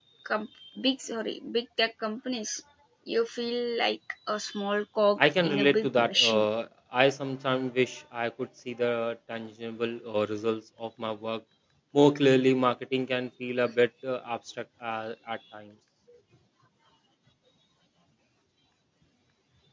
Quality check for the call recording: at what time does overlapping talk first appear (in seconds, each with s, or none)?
5.2 s